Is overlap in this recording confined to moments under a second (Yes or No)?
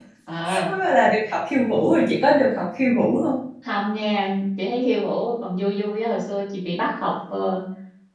Yes